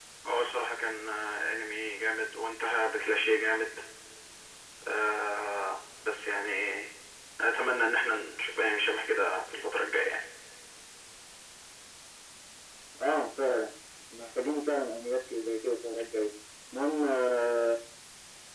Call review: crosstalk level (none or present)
none